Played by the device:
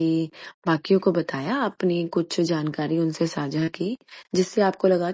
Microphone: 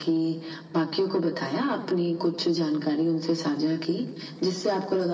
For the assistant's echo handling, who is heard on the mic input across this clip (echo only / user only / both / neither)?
echo only